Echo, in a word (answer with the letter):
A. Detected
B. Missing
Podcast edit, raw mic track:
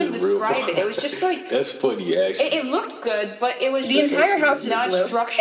A